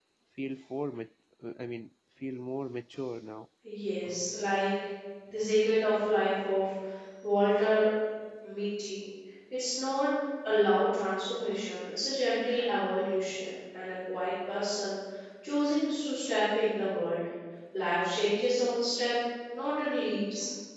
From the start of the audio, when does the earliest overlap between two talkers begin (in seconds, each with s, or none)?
none